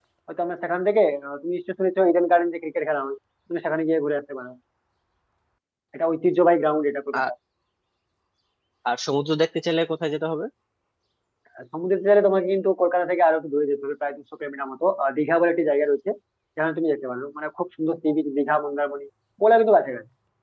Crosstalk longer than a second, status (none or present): none